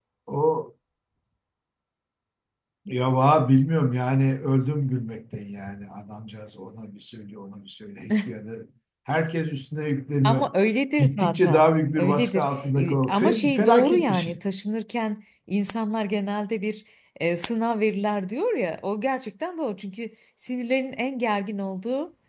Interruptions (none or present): present